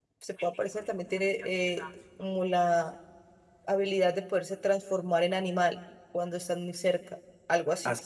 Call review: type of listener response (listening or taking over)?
taking over